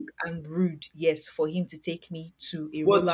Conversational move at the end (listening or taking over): taking over